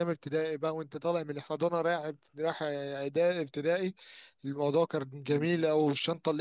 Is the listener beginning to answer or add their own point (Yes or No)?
No